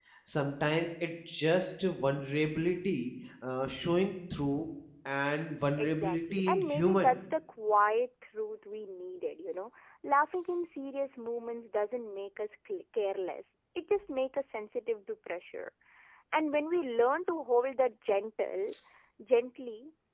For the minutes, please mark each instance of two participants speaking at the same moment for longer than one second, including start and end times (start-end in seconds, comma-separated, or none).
5.8-7.1